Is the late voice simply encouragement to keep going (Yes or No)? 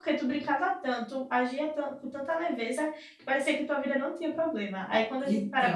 Yes